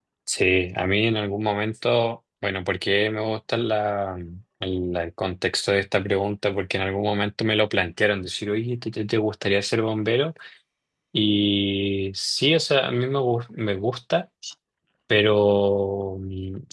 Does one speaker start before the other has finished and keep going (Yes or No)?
No